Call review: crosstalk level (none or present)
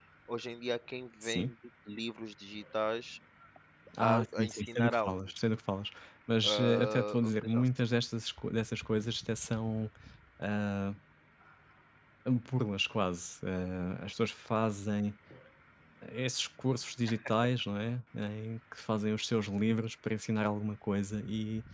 present